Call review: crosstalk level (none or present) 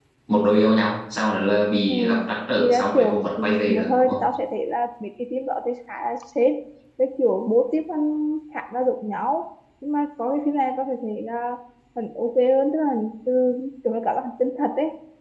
present